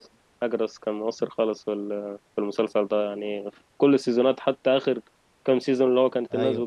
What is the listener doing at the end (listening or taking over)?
listening